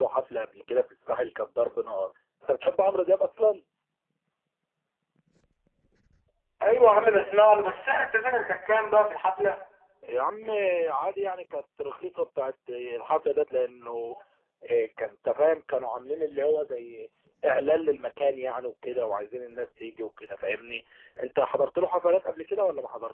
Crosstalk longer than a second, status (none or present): none